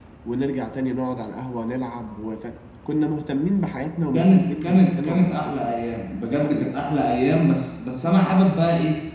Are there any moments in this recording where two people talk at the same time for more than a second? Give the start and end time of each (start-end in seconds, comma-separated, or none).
4.1-5.7